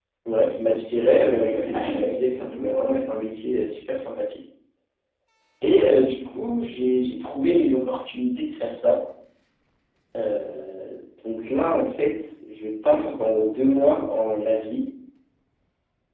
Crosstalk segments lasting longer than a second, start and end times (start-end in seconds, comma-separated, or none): 1.3-2.6